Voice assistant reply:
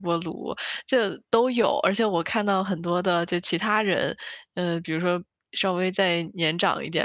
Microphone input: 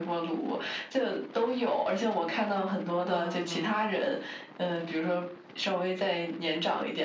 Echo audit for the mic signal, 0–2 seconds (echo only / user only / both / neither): echo only